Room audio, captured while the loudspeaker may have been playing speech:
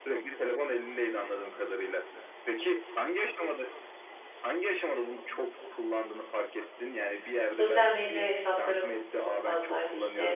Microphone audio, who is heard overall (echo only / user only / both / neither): both